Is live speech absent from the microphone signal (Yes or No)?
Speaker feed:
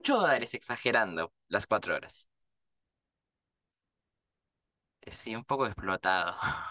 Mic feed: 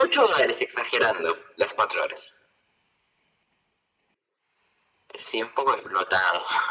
Yes